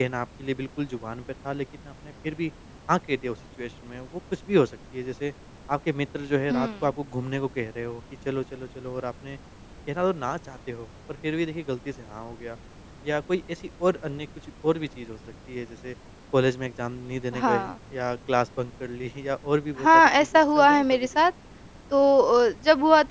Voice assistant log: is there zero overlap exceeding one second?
No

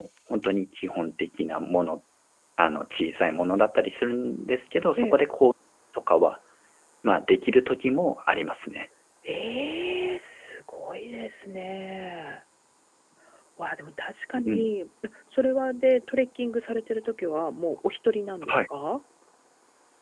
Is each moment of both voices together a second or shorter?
Yes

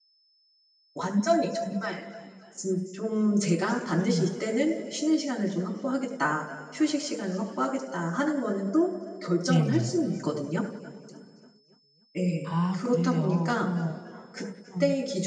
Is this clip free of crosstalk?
No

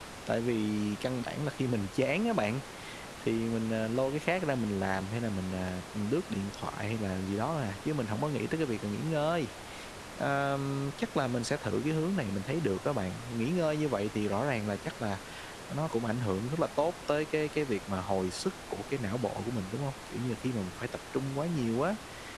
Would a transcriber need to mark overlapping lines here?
No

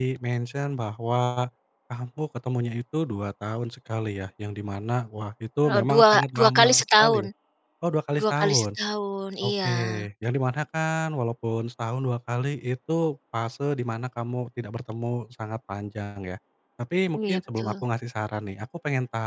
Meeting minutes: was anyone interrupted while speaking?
Yes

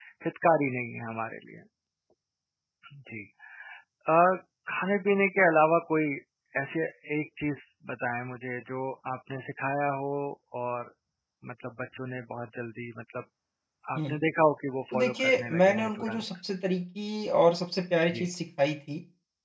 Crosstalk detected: Yes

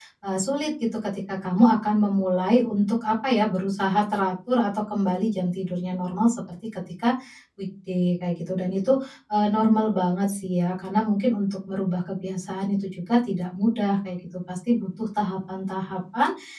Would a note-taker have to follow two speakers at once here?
No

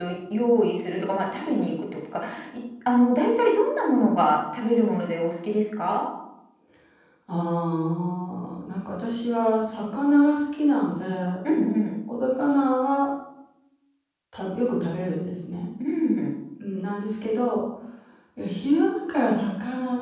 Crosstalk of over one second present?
No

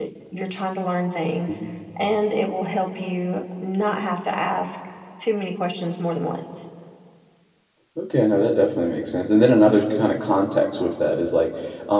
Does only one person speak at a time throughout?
Yes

